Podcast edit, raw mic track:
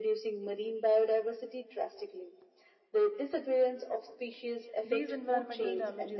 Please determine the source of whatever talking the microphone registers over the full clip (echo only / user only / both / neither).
both